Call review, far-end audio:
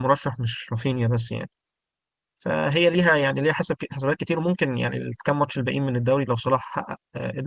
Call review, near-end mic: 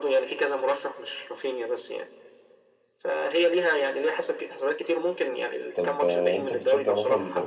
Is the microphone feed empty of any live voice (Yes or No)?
No